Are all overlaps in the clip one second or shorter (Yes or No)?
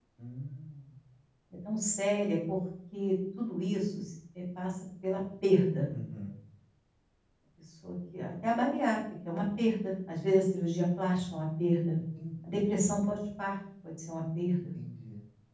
Yes